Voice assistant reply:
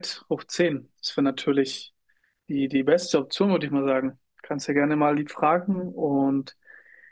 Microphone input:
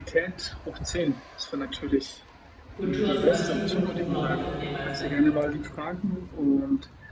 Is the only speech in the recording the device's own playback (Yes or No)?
No